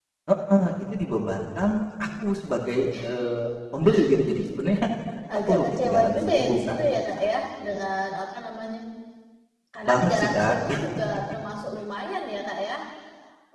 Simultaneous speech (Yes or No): Yes